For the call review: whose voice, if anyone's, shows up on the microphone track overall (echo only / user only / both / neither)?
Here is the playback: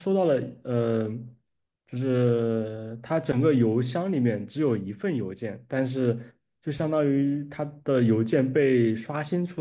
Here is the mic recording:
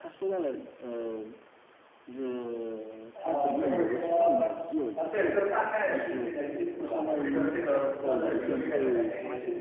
both